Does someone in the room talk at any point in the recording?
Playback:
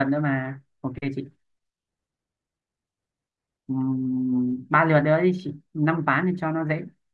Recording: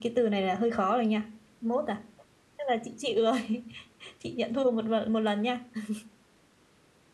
Yes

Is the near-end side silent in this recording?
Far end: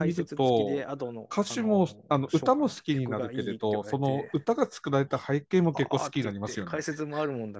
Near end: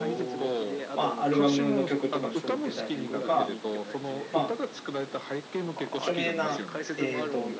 No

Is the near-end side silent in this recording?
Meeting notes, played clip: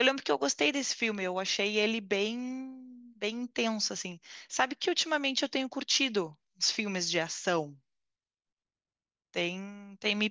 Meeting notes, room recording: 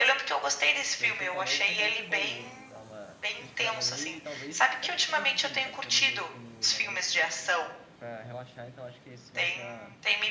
No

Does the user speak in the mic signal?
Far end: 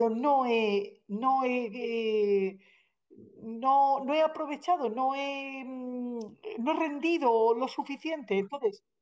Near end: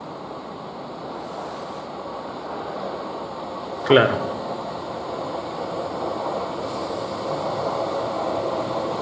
Yes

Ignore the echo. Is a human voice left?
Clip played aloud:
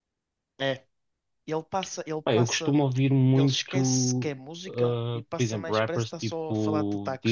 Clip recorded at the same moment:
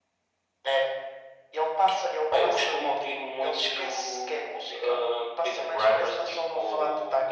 No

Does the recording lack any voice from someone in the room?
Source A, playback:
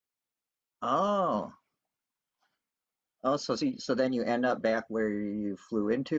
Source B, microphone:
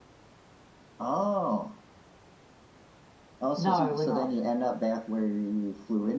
No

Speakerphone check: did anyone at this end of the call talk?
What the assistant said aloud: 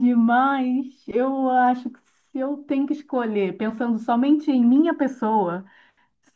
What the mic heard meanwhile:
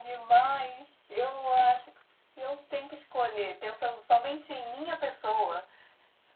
No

